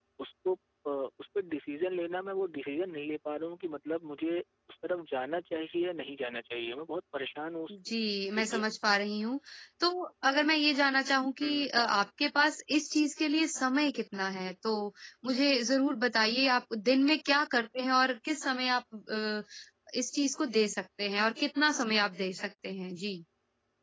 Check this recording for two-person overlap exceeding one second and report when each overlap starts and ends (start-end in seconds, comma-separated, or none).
none